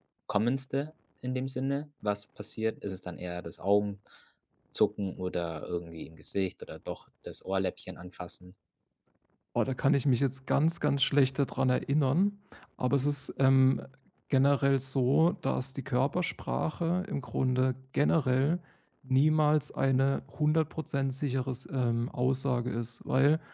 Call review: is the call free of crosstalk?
Yes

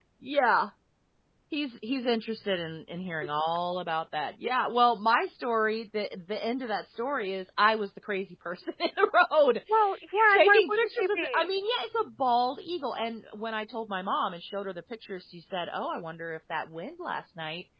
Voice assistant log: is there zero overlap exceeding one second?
No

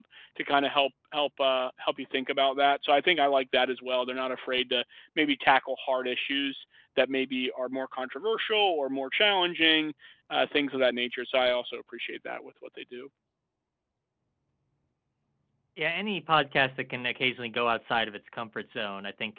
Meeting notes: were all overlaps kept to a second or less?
Yes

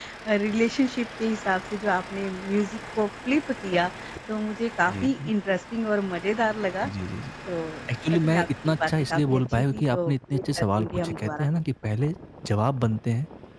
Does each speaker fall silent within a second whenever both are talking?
No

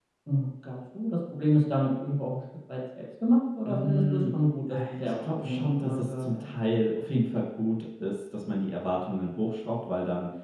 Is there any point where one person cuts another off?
Yes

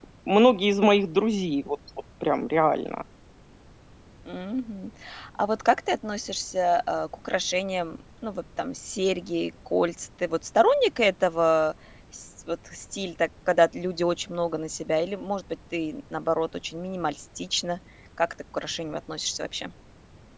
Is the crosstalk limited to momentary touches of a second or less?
Yes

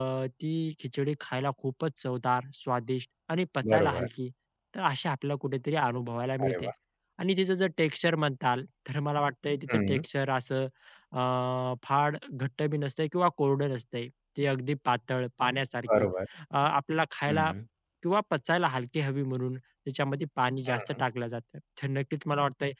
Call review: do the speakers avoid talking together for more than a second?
Yes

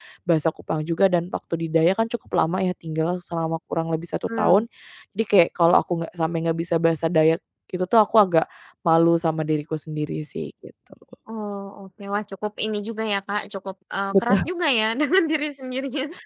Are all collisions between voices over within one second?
Yes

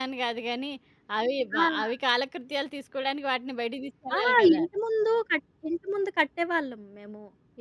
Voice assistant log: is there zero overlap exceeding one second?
Yes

